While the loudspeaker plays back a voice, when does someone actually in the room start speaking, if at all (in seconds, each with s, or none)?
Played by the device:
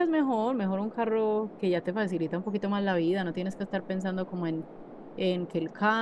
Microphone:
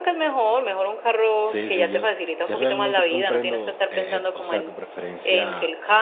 1.4 s